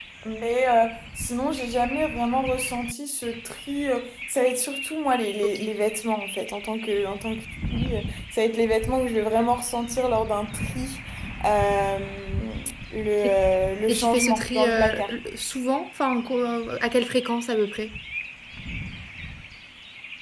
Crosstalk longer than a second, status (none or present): present